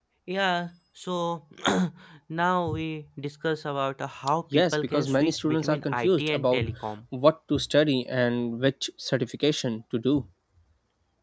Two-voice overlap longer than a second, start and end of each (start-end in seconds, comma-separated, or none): 4.5-6.7